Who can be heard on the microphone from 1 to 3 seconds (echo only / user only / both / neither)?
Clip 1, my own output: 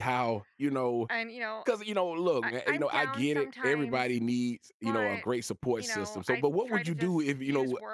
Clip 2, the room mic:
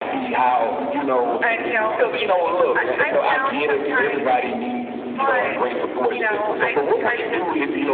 echo only